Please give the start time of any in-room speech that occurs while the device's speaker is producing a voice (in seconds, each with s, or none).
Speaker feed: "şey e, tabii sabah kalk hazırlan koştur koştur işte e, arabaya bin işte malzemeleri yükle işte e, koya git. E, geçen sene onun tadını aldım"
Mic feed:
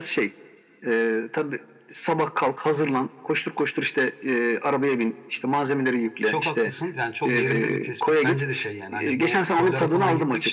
6.2 s